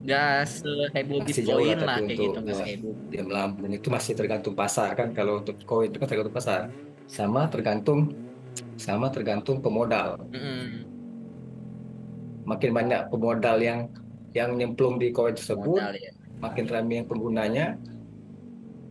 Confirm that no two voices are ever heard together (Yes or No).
No